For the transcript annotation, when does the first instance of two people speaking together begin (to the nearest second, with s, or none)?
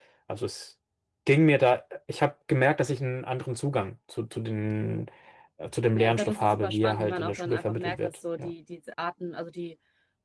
6 s